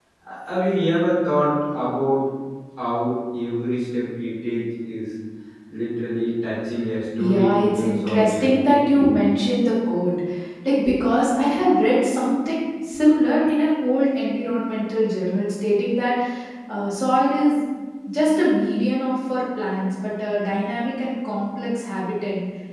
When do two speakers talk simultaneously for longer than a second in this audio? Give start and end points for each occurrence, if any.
7.2-8.8

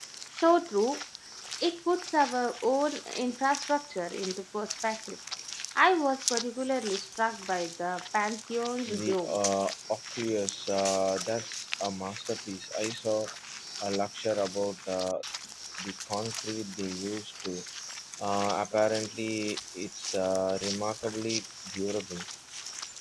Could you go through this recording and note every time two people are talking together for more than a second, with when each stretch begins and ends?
none

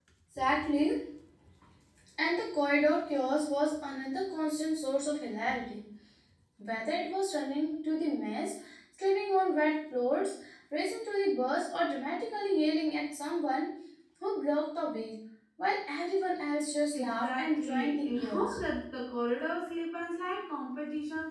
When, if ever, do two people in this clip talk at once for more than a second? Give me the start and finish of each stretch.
16.9-18.5

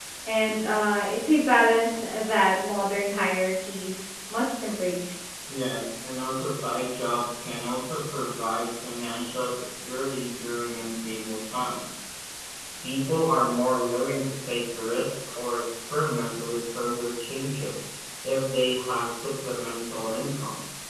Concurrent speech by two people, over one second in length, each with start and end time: none

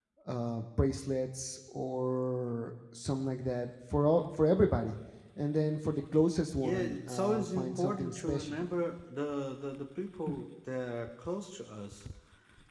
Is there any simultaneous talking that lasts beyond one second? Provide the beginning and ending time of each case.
6.6-8.6

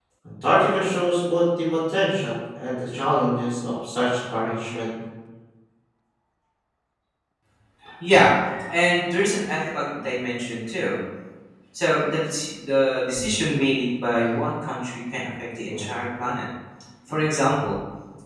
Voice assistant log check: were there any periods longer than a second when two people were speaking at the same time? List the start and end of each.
none

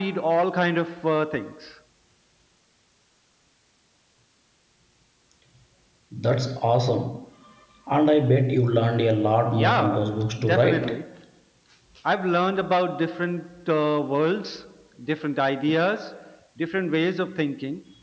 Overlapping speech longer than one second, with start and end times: 9.5-11.0

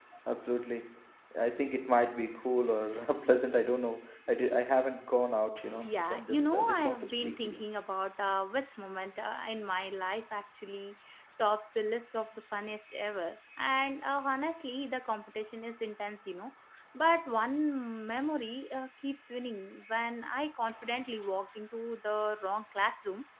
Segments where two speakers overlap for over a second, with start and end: 5.7-7.7

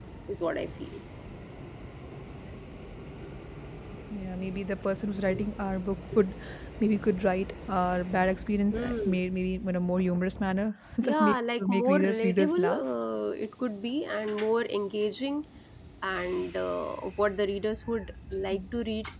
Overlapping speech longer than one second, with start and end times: 11.0-12.8

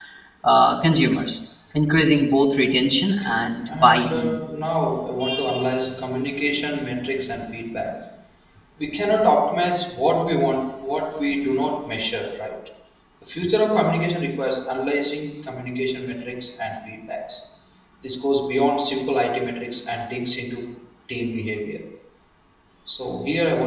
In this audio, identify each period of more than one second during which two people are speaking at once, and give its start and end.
3.1-4.4

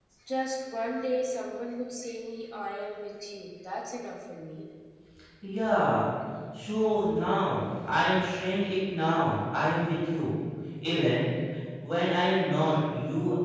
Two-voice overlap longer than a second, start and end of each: none

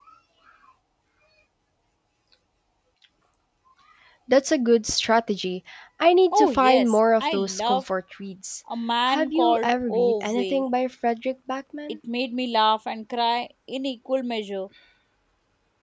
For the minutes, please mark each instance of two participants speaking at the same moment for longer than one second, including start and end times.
6.3-7.8, 9.1-10.6

